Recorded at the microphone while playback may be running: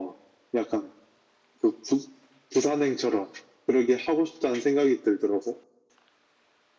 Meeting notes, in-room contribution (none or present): none